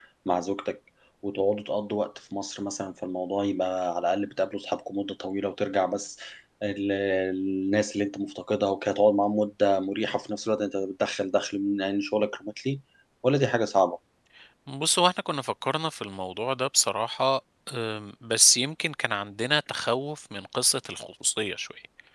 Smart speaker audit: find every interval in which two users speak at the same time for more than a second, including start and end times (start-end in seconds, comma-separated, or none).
none